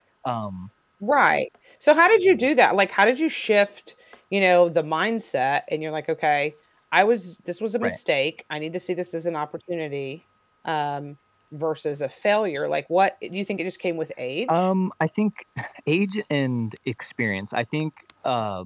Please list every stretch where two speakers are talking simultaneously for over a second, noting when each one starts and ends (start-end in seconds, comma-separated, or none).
none